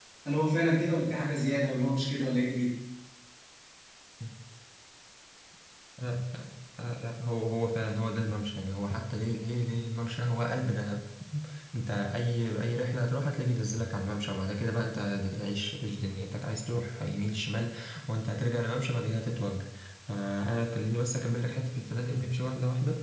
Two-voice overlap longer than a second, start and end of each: none

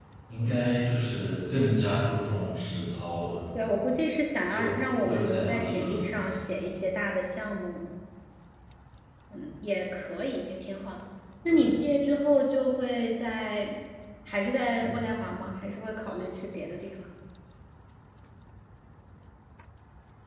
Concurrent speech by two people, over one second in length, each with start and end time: 4.5-6.2

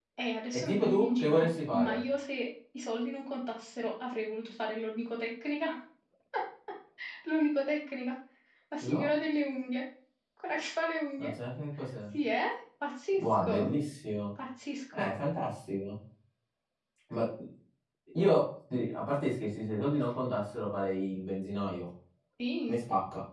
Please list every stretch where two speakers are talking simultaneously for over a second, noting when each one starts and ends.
0.6-2.0

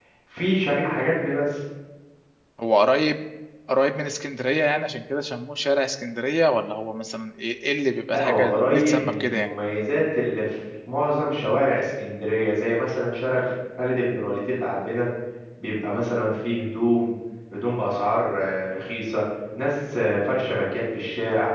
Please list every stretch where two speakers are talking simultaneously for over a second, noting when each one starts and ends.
8.1-9.5

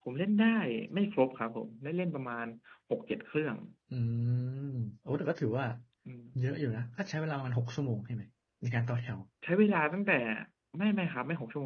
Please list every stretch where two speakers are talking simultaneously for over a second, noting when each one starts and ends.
none

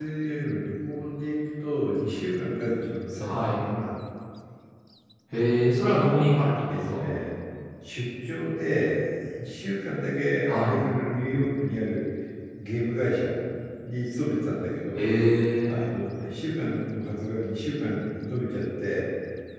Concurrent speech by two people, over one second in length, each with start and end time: none

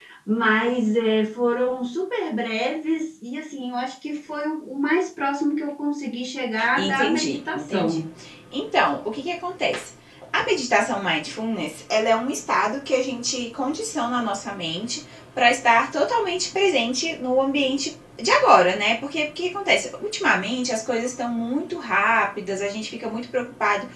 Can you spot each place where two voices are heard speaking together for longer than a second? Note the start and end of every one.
6.8-8.0

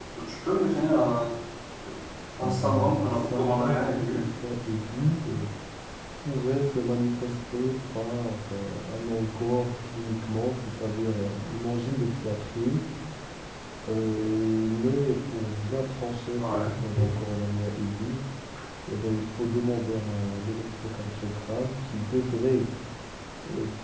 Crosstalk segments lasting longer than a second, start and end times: 2.4-4.2

